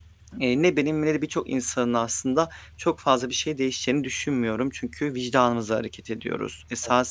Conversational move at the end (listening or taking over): listening